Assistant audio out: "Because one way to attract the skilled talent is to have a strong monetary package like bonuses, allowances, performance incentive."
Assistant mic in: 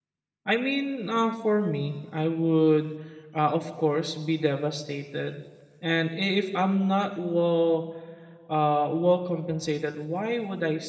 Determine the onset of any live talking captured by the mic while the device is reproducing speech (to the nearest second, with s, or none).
0 s